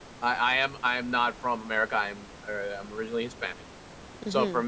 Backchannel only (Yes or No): Yes